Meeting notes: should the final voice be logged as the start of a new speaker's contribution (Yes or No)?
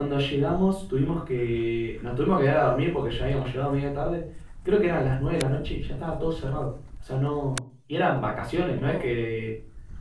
No